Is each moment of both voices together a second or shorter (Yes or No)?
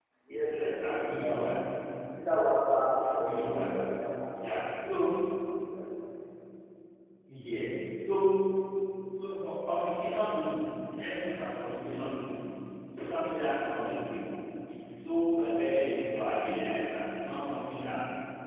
No